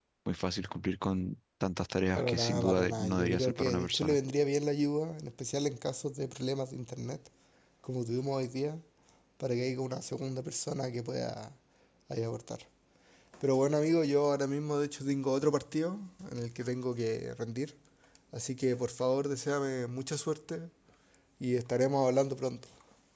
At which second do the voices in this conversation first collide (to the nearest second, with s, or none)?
2 s